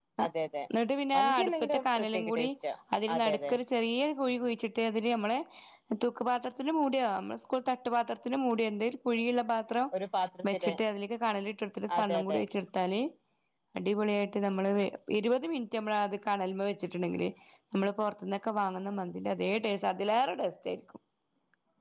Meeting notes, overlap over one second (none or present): present